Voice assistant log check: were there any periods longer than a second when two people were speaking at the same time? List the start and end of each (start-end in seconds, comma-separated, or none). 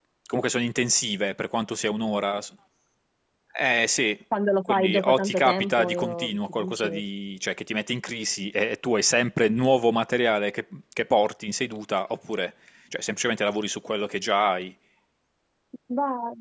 4.7-6.9